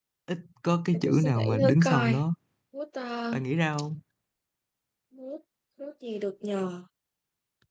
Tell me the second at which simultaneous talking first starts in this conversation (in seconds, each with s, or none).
0.9 s